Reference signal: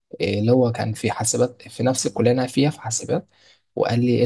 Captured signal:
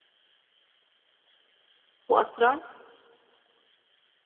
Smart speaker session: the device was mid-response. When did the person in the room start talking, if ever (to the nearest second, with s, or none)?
2 s